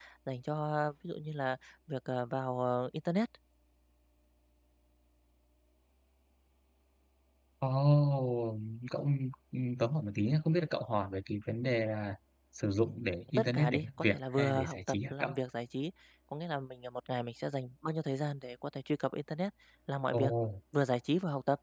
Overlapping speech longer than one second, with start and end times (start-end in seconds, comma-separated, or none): 13.4-15.3